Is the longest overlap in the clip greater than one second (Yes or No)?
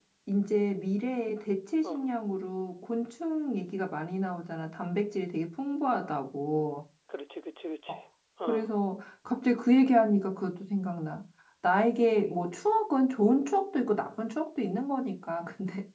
No